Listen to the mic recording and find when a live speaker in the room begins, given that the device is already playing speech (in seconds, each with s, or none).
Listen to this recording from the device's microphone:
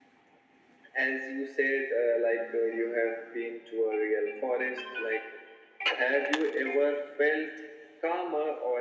none